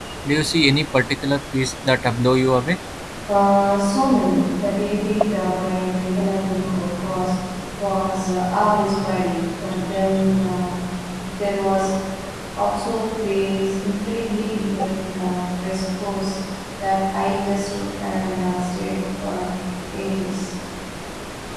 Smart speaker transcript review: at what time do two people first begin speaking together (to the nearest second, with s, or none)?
none